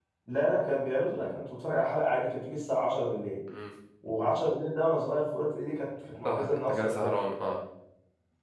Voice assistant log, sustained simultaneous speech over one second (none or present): present